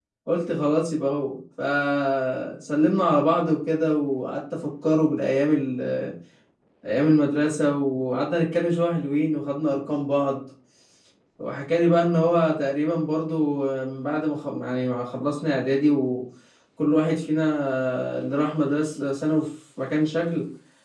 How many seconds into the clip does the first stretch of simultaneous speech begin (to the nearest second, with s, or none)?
none